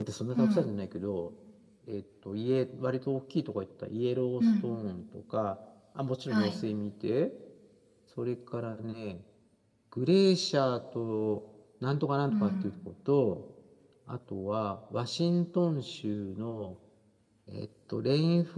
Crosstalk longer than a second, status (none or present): none